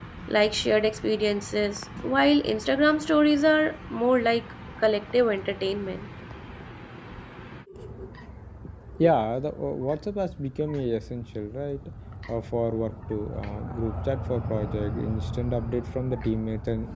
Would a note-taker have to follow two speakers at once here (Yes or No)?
No